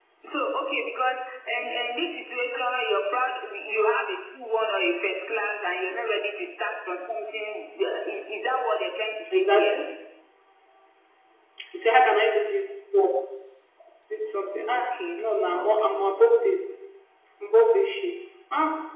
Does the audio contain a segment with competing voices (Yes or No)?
Yes